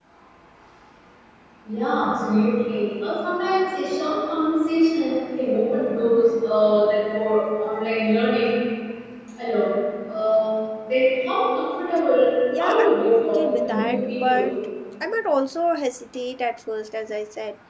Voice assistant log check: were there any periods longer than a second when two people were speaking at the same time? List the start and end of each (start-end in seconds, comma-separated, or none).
12.6-14.4